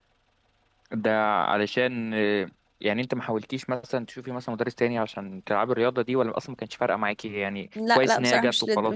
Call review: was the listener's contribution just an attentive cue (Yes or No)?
No